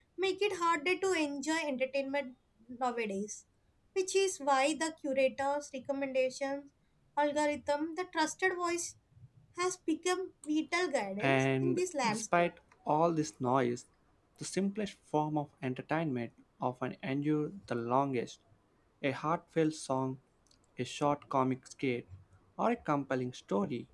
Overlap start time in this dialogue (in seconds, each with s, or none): 11.2 s